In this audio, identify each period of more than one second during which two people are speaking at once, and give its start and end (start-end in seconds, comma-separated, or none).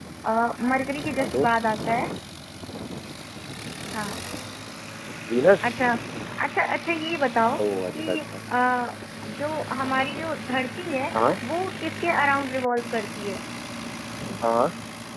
none